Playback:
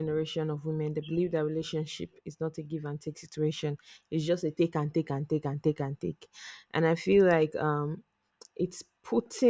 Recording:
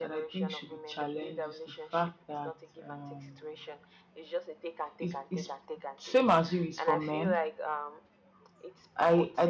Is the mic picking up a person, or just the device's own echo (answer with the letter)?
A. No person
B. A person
B